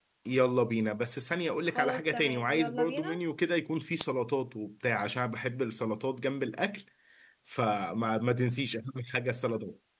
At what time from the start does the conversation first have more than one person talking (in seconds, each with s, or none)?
1.7 s